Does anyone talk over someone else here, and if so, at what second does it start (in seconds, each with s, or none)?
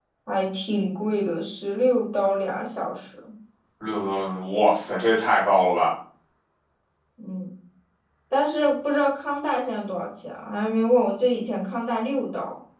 none